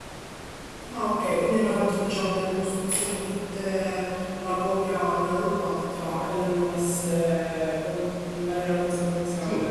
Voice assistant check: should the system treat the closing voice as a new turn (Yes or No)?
Yes